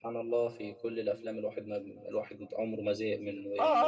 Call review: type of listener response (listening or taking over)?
taking over